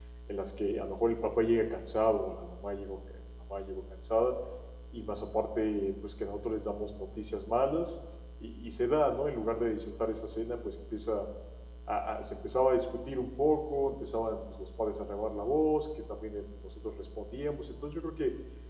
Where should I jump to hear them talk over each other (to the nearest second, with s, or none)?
none